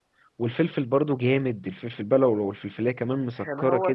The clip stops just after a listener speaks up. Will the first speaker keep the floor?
No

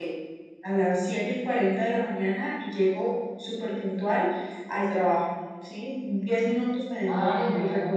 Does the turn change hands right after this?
Yes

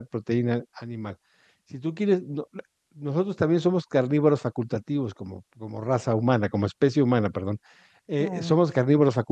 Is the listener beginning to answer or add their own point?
No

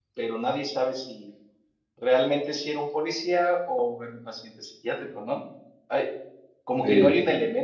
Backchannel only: Yes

